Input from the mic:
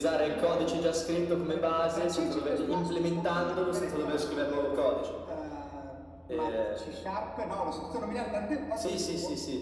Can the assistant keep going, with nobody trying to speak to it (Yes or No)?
Yes